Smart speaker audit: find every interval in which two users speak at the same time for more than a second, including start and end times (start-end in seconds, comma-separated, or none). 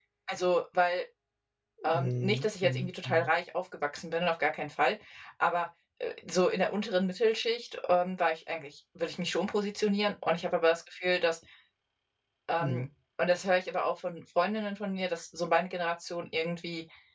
1.9-3.3